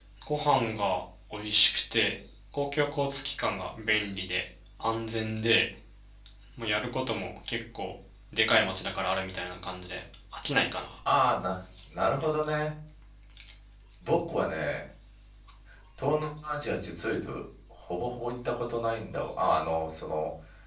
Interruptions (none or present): none